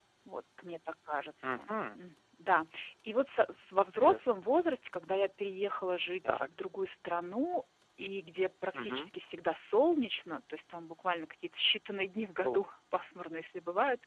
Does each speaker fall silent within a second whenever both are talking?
Yes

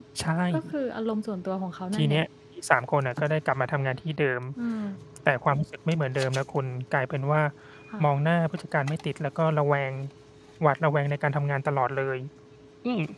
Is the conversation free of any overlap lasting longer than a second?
Yes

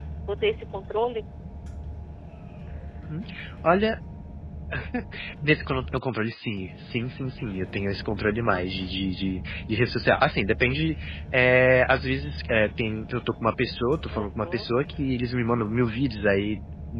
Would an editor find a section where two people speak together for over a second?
No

